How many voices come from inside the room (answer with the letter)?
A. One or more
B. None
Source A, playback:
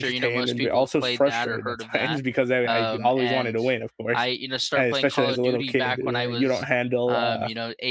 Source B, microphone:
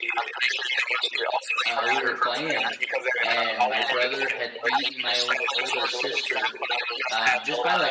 A